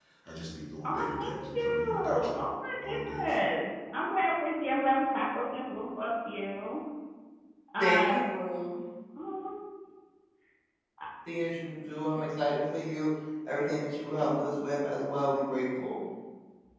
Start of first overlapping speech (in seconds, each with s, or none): 0.8 s